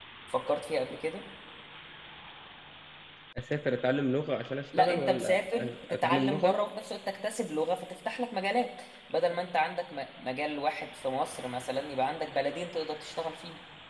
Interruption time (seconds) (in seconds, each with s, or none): 4.7 s